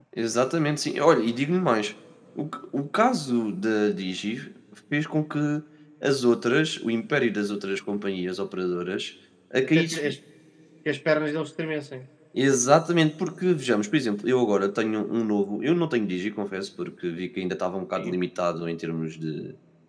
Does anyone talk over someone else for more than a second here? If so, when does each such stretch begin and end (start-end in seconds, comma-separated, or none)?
none